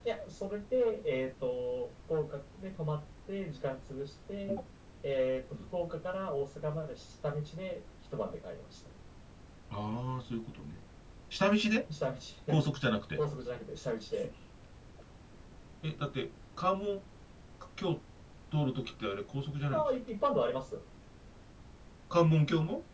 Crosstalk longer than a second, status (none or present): none